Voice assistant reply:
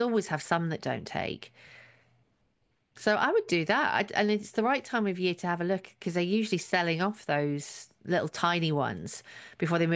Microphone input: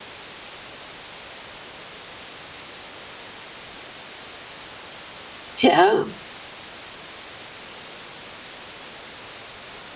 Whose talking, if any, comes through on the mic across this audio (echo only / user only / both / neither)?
user only